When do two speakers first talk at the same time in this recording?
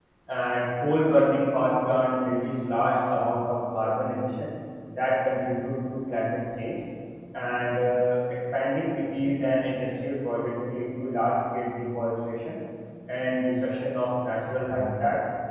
none

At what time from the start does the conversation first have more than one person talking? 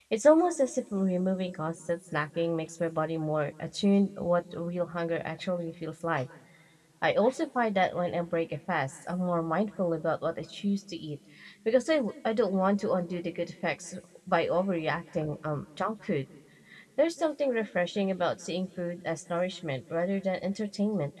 none

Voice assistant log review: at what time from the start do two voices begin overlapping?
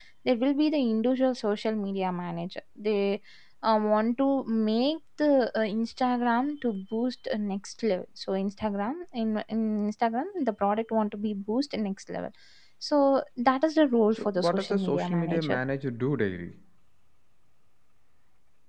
14.2 s

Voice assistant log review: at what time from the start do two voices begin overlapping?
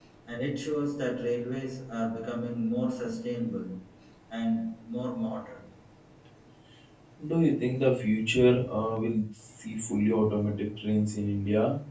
none

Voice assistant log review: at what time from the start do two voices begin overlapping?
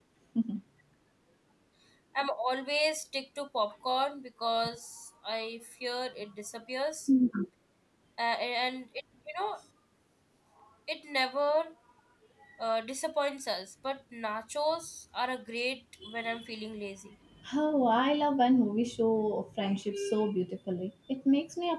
none

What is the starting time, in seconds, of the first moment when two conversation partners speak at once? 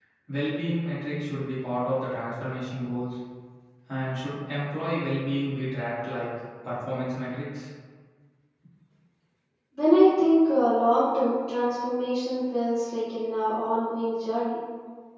none

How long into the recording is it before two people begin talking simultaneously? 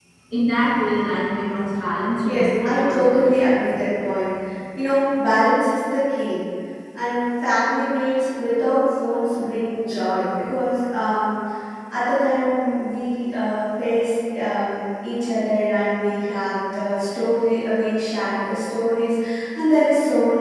2.2 s

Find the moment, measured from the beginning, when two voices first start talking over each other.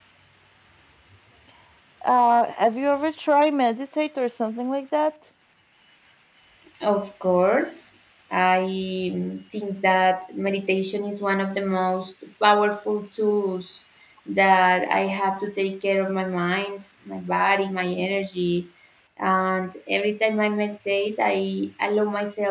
none

